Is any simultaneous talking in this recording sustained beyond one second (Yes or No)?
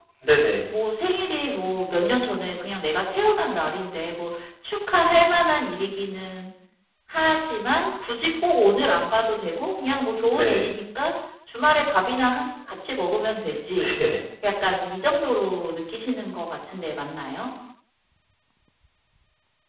No